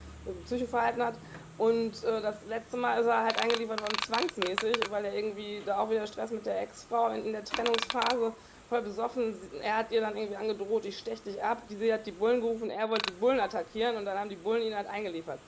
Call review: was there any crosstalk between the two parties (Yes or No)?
No